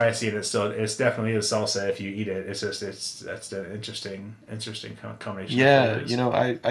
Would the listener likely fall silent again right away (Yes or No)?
No